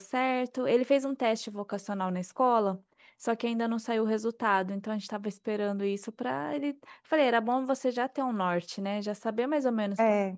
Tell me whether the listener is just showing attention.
Yes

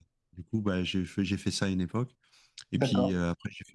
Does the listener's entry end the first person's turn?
No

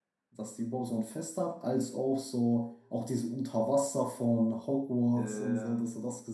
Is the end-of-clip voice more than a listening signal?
No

